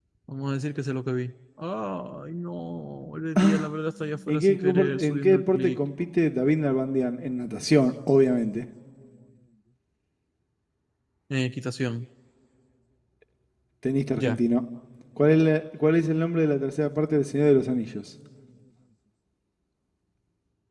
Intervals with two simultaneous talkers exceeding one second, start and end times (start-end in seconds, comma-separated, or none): 4.3-5.8